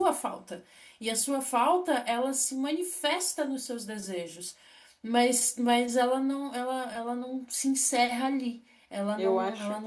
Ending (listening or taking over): taking over